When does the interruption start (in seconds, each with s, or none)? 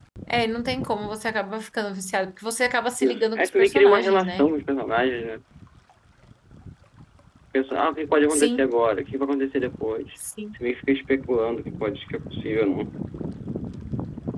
3.0 s